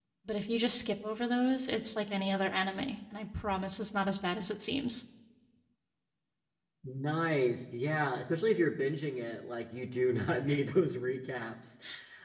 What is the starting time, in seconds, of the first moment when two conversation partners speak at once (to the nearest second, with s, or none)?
none